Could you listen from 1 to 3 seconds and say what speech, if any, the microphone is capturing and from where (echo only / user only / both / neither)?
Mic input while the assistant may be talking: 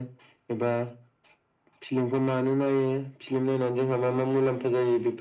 echo only